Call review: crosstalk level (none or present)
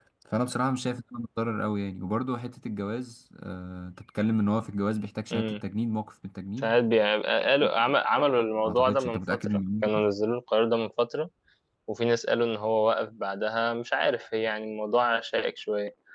present